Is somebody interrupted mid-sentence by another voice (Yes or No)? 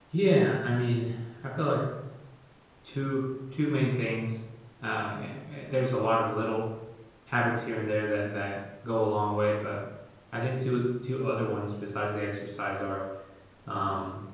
No